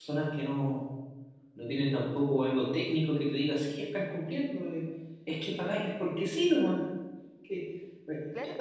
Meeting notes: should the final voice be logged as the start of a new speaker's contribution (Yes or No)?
Yes